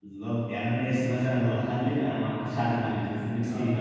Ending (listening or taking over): listening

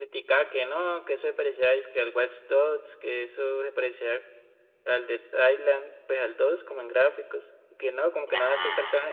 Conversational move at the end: listening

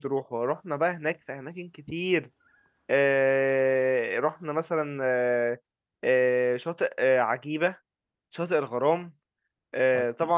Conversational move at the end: listening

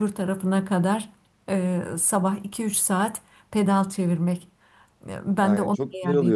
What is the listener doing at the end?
taking over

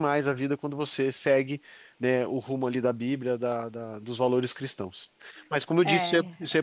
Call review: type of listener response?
taking over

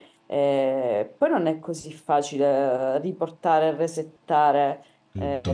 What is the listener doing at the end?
listening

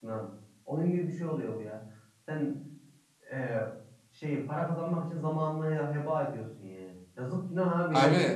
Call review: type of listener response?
listening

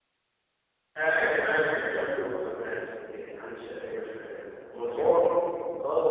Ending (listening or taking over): taking over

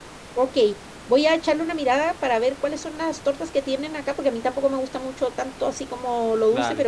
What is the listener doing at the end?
listening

